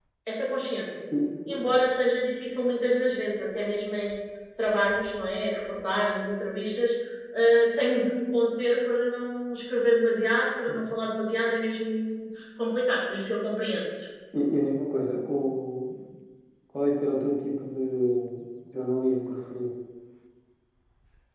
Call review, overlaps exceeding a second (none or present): none